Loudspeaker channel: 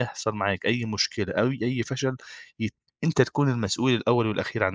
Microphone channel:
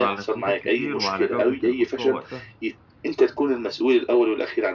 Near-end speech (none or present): present